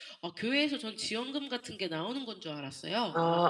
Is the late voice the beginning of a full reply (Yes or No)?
Yes